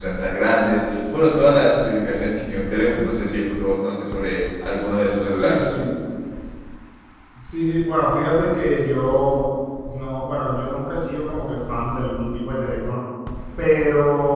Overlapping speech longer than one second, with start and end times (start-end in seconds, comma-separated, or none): none